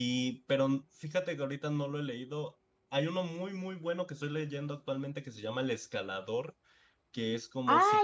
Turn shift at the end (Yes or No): Yes